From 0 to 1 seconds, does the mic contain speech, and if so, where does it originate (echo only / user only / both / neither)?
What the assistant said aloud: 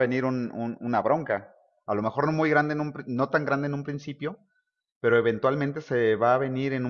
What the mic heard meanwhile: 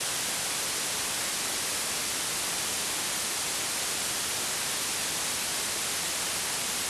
neither